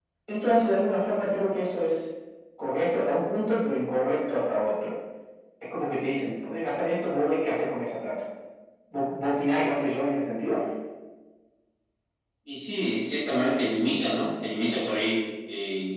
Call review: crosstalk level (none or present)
none